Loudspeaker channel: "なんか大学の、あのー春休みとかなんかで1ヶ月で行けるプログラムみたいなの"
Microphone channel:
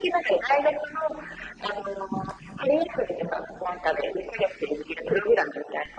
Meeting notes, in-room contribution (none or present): none